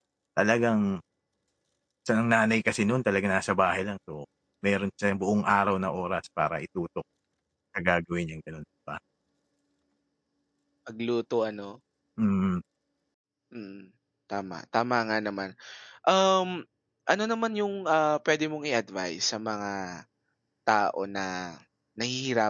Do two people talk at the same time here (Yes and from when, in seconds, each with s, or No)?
No